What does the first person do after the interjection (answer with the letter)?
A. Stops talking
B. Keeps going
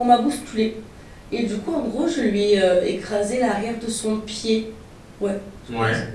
B